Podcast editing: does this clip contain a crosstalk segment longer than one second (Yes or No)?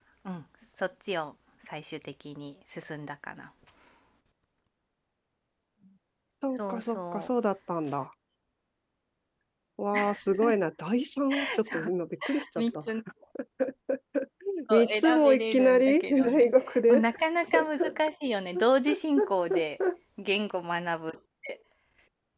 Yes